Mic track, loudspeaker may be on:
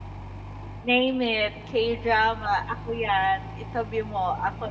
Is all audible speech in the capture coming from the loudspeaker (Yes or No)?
No